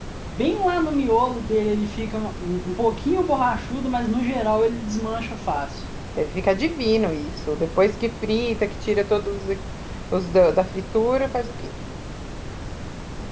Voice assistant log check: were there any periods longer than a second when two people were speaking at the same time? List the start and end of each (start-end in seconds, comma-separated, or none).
none